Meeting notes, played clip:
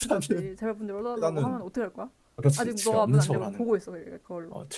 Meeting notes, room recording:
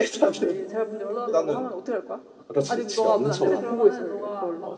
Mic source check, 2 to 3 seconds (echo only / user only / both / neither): both